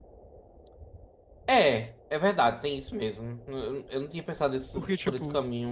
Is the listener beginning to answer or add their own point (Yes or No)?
Yes